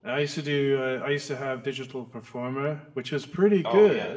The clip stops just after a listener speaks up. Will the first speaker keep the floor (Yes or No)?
Yes